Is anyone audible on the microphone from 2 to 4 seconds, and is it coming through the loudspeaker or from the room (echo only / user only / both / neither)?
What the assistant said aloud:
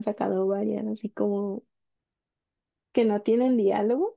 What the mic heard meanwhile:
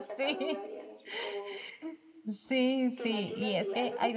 both